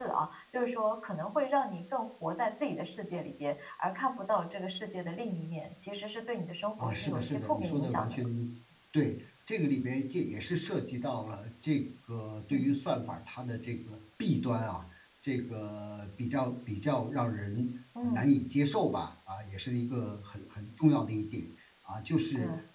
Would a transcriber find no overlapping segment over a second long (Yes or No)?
No